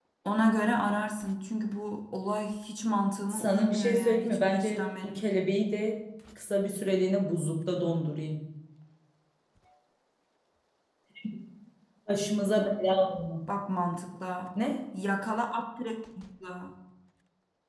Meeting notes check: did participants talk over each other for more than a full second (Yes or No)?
Yes